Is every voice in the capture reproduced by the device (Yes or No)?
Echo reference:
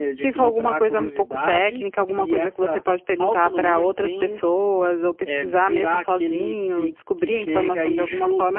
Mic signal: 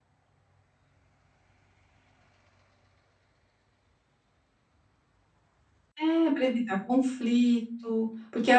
No